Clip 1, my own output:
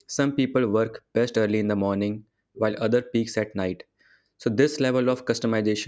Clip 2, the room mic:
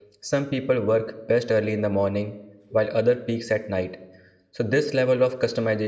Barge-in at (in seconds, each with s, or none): none